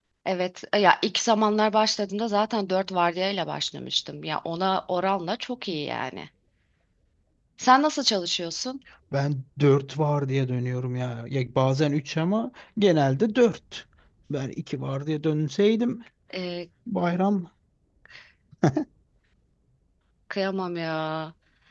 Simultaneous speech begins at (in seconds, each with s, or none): none